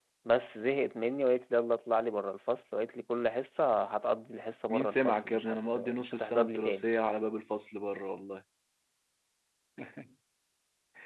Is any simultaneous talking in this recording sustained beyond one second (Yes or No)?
Yes